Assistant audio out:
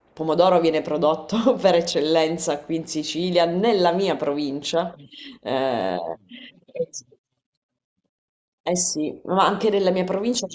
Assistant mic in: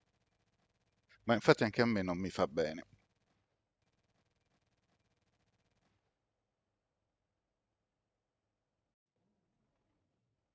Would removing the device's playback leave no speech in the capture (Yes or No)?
No